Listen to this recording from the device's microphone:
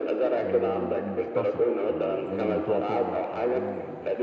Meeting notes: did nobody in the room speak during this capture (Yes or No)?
No